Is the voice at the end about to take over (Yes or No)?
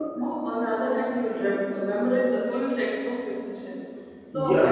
Yes